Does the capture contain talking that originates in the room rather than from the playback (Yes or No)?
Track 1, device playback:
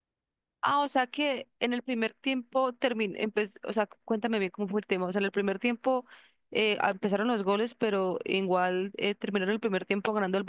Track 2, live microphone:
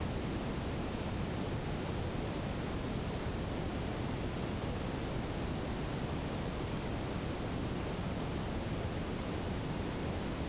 No